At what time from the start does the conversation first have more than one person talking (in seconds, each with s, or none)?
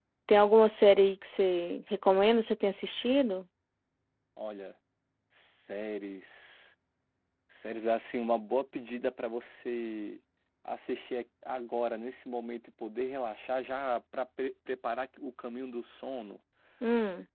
none